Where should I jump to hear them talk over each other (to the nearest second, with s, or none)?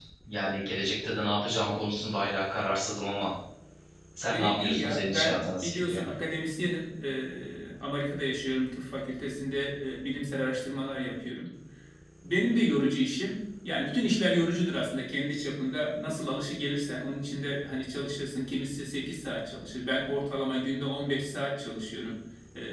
4 s